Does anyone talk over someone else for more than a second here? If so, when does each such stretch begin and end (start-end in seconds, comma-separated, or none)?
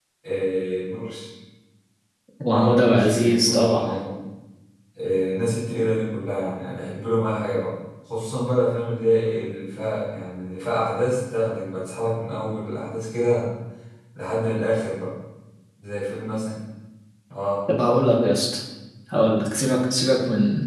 2.5-3.9